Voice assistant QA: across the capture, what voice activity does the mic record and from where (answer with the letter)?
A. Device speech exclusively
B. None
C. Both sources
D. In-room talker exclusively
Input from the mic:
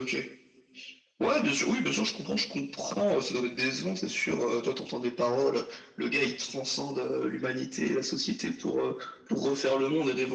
A